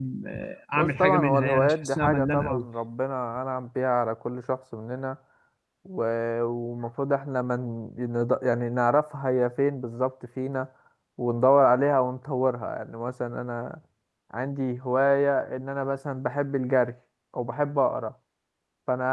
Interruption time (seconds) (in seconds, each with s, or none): 0.7 s